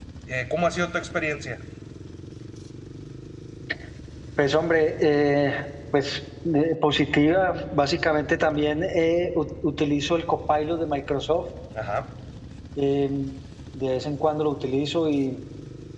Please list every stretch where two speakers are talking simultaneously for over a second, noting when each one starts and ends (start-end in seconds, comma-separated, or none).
none